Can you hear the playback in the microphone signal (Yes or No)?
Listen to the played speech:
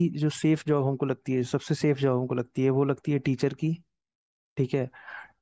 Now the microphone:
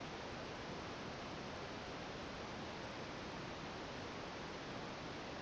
No